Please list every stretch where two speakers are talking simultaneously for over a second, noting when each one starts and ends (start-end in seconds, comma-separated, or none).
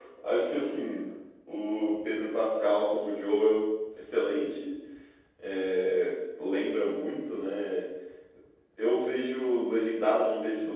none